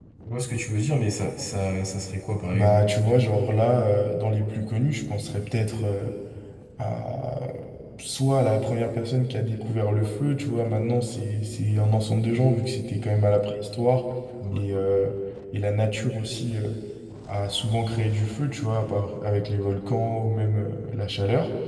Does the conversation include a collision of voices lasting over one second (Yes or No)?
No